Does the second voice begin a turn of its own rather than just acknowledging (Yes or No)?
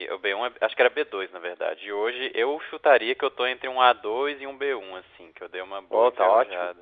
Yes